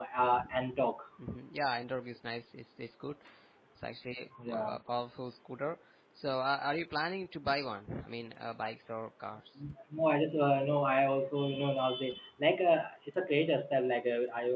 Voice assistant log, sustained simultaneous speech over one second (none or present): none